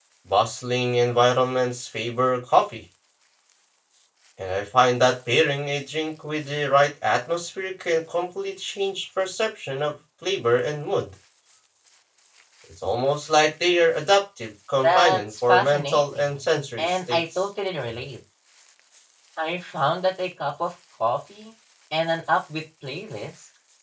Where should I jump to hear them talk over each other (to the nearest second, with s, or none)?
15 s